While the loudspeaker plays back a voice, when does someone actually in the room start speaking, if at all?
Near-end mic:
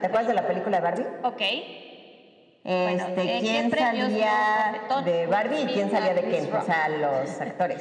none

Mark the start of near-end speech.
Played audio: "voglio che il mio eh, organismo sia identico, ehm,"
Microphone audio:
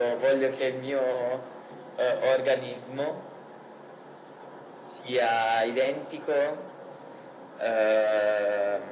none

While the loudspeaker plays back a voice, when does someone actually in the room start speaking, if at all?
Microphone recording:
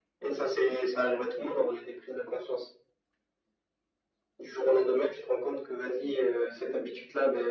none

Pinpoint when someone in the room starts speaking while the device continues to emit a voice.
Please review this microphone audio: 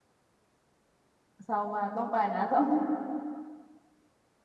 1.4 s

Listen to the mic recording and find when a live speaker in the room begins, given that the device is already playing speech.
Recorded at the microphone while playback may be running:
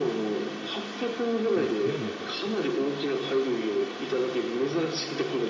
1.5 s

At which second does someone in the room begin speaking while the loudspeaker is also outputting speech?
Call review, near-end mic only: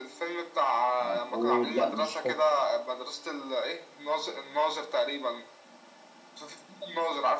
1.0 s

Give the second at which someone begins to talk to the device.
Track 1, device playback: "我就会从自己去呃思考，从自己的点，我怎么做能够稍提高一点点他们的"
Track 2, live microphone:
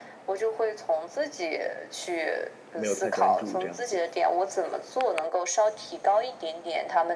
2.7 s

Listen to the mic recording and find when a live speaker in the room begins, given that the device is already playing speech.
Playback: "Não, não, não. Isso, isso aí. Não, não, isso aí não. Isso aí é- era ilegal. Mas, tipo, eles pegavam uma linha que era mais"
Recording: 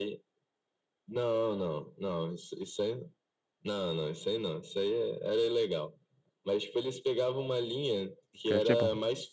8.3 s

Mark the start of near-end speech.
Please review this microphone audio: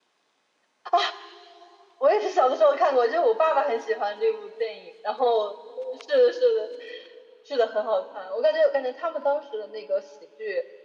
none

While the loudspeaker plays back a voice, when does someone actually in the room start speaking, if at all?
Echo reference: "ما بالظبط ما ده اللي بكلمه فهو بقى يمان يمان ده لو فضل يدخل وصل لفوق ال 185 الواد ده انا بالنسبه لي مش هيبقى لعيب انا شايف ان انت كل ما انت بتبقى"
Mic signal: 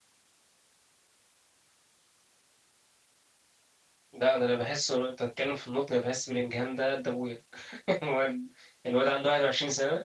4.1 s

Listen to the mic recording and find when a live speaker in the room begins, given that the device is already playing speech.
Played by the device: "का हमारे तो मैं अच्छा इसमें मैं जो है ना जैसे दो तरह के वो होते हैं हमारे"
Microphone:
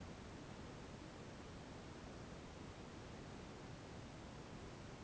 none

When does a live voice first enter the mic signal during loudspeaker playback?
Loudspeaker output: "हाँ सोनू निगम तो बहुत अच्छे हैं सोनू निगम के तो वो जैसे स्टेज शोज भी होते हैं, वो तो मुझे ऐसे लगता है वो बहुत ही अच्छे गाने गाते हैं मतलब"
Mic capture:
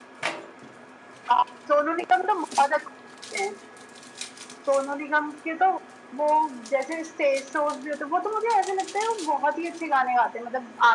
none

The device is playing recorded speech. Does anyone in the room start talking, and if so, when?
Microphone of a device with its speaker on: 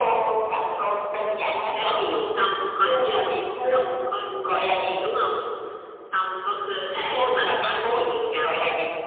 none

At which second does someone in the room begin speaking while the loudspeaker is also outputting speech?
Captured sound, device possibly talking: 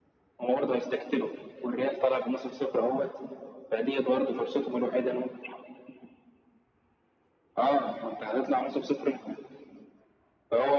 none

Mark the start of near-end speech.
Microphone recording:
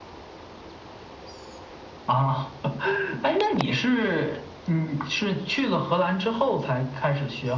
none

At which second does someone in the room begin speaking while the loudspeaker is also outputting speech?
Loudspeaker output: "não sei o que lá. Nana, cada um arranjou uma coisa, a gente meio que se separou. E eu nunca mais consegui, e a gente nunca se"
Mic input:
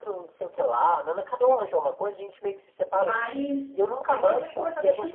2.9 s

